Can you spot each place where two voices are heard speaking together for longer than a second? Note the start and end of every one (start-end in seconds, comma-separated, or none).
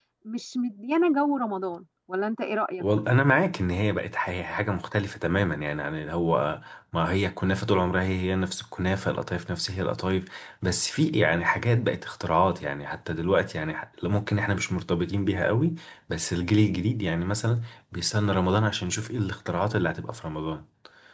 none